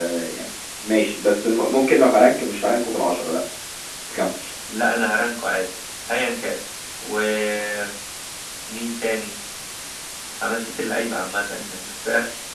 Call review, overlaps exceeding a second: none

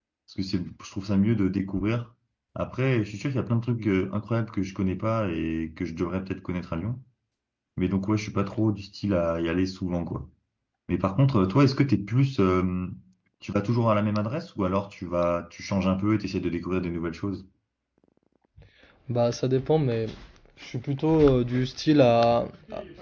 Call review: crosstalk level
none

